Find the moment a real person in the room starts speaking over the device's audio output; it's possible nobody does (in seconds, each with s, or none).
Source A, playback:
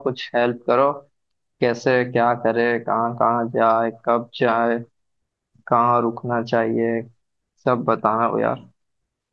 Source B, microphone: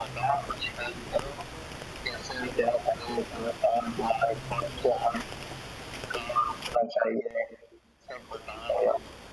none